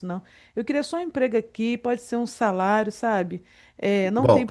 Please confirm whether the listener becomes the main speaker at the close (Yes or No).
Yes